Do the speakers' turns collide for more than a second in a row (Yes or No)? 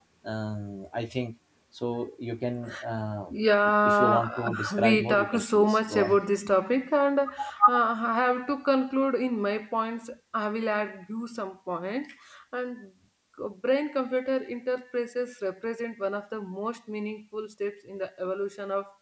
Yes